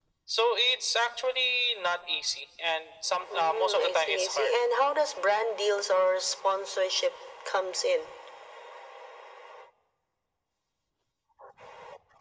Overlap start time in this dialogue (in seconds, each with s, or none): 3.3 s